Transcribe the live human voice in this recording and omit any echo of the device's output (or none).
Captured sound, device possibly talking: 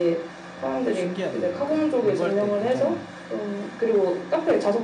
와 신기하네요. 약간 공부할 때 굉장히